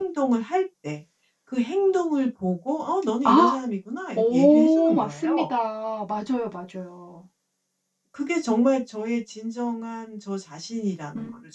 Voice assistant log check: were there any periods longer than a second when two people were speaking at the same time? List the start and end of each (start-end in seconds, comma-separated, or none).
4.2-5.5